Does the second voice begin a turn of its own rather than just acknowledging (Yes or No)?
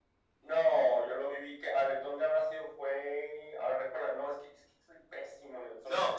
Yes